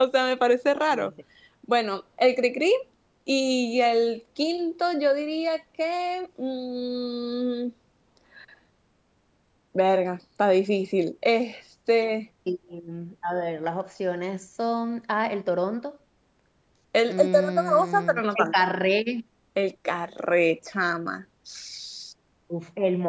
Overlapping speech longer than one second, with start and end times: 17.1-18.6

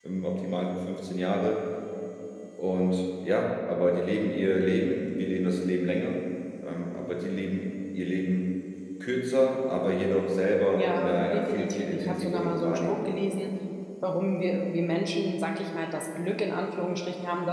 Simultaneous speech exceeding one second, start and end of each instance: 10.8-13.1

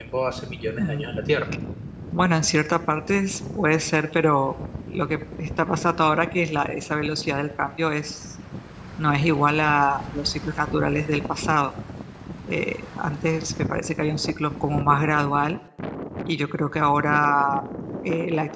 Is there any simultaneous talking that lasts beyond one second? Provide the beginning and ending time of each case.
none

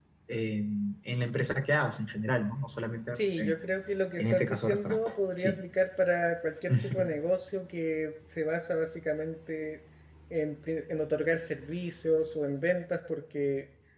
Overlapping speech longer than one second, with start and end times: 4.2-5.6

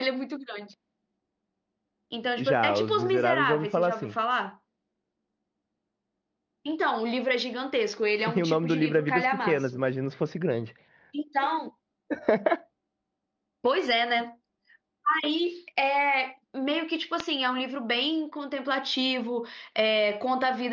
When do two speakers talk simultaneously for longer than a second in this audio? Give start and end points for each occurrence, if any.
2.4-4.1, 8.4-9.8

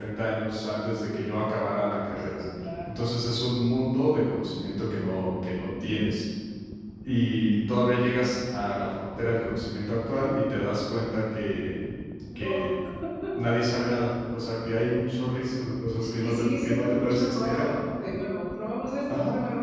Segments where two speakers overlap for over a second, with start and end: 16.2-17.7

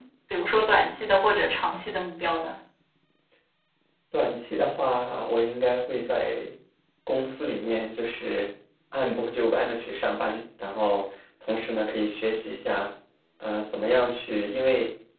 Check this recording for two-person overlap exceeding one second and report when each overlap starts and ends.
none

